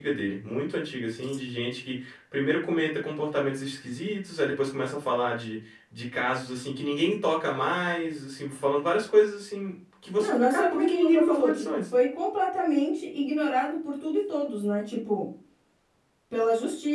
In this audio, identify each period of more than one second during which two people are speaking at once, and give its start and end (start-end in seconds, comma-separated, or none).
10.2-11.8